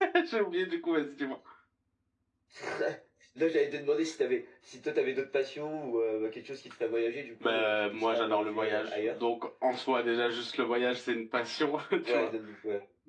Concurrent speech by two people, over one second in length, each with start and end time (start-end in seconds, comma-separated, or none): 7.5-9.2